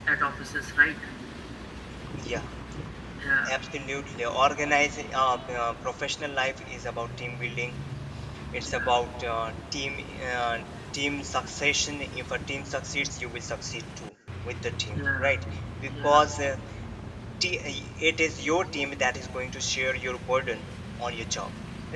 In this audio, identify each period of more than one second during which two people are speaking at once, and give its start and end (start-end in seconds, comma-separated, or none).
none